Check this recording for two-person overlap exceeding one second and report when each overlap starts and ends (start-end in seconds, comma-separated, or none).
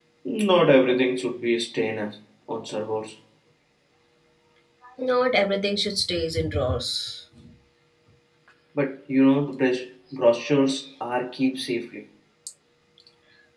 none